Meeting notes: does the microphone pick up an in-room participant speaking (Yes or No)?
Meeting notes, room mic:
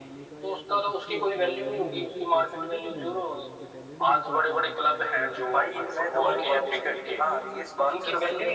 Yes